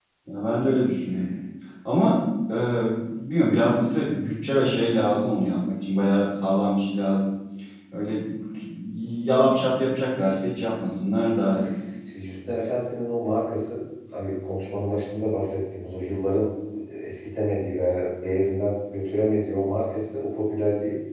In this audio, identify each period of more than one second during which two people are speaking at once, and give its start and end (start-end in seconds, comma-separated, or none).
none